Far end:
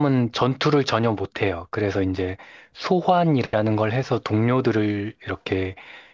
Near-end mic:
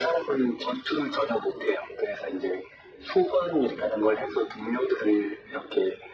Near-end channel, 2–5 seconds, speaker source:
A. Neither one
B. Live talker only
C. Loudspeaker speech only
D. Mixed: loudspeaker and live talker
C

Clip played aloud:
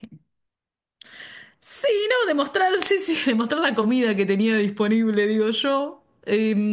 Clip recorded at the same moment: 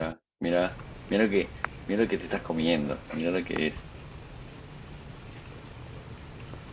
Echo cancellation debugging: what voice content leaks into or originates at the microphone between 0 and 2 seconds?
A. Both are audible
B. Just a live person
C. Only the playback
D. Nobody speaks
B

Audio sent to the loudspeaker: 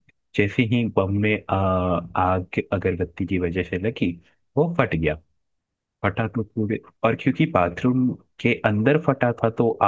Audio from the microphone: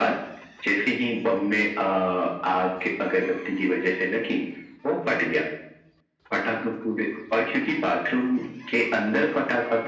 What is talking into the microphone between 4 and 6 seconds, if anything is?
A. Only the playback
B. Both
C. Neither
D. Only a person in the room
A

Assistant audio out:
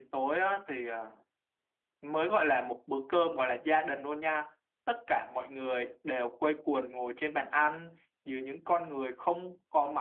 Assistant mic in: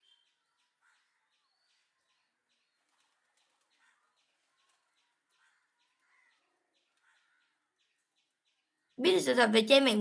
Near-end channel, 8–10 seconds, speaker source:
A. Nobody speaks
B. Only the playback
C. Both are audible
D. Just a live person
D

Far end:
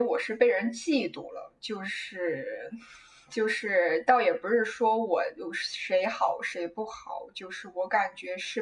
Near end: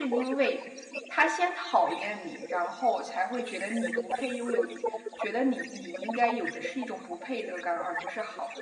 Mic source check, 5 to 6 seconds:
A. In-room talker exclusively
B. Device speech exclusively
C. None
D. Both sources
D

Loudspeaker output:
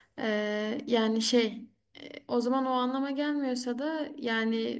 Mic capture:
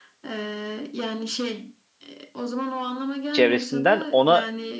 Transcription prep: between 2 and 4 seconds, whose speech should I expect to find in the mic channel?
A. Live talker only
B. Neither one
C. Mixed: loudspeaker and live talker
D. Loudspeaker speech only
C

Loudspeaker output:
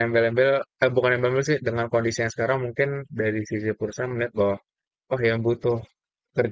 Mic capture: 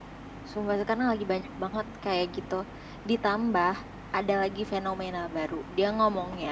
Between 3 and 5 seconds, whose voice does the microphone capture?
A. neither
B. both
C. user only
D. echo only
C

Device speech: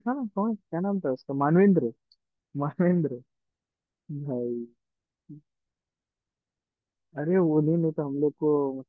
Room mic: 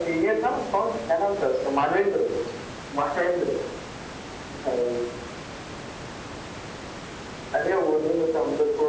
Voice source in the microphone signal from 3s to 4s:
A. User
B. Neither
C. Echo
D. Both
C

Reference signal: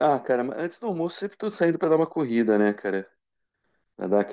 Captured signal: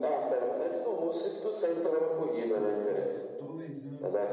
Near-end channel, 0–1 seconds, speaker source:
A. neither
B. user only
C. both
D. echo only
D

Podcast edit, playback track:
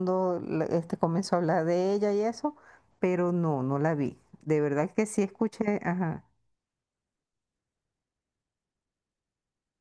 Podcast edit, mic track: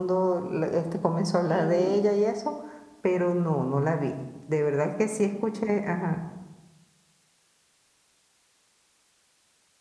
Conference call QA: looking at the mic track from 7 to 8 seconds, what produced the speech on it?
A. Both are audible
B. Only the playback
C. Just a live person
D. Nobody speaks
D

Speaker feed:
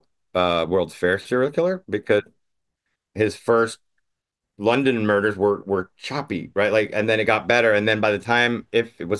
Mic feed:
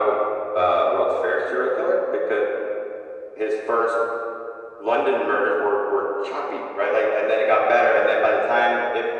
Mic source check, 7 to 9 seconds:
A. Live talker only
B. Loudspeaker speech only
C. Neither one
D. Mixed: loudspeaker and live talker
B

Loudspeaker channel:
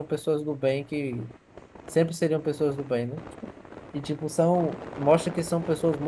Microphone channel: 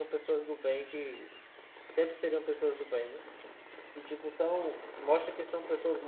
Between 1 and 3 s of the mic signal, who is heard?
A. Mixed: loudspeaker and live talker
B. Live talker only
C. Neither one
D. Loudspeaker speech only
D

